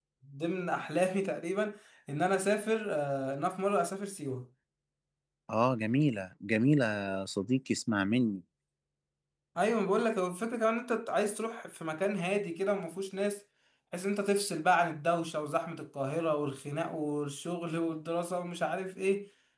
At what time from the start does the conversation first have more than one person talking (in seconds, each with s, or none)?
none